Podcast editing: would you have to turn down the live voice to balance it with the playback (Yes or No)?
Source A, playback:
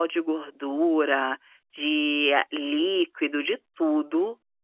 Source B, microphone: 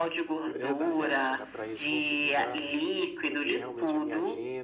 No